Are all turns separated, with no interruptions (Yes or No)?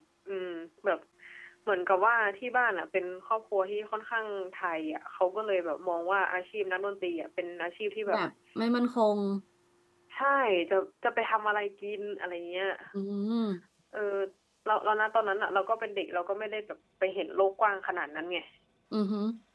Yes